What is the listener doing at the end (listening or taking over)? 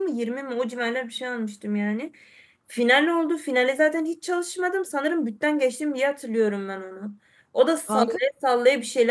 listening